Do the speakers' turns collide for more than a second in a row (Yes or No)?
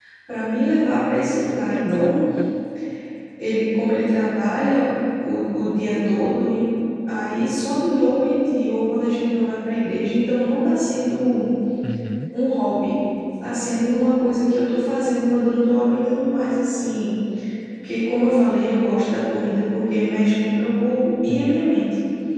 No